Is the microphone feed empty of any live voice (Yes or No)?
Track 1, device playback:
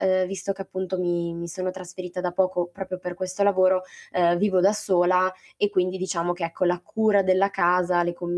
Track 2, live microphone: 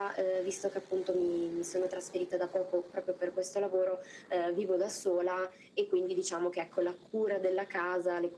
Yes